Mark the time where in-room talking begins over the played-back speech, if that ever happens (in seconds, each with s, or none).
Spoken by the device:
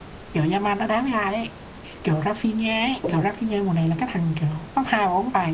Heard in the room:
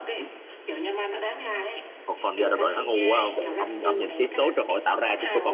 2.1 s